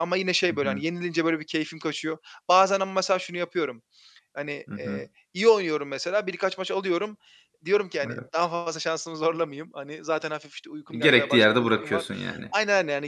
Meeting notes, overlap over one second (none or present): present